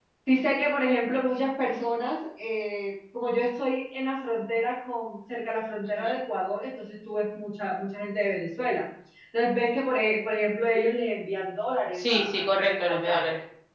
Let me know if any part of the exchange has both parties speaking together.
Yes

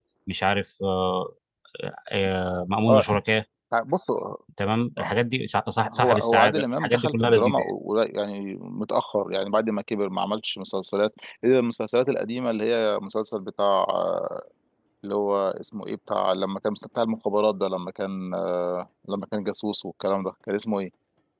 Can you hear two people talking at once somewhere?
Yes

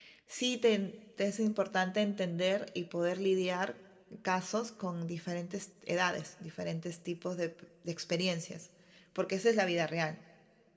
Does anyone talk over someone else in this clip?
No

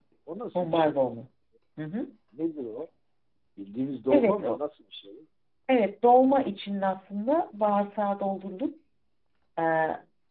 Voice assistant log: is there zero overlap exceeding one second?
Yes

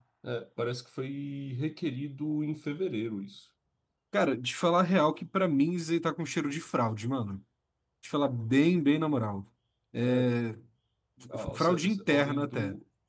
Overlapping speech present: Yes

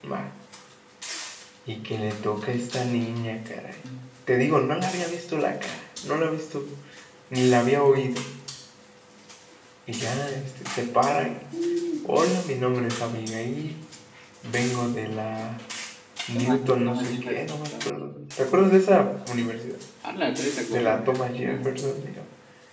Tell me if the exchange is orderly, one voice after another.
No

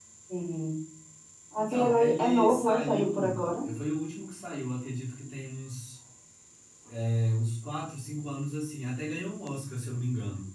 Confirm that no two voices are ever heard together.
No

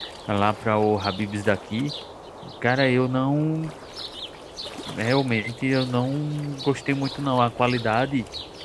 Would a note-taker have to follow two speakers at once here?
No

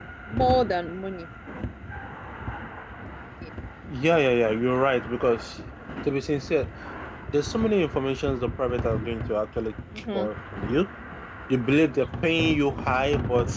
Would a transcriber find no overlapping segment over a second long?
Yes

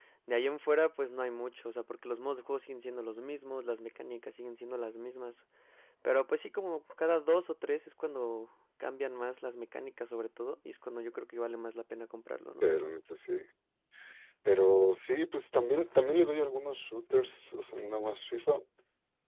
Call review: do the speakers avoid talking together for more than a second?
Yes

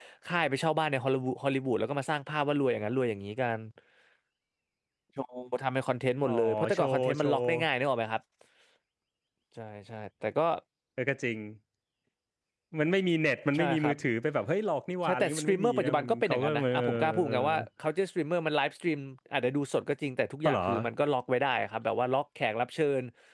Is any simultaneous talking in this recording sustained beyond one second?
Yes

